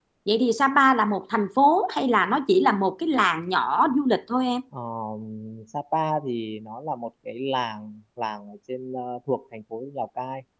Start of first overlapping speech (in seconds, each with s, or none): none